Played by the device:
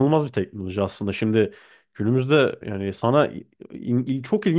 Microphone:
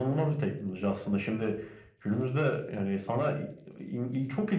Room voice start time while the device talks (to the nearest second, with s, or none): none